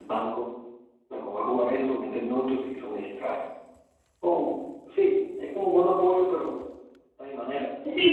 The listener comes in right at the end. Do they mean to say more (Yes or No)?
Yes